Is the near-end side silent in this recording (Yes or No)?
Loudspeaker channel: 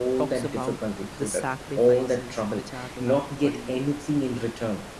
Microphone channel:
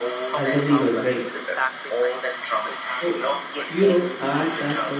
No